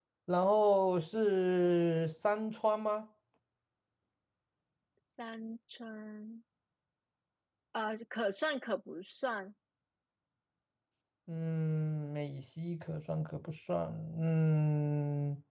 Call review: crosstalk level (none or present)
none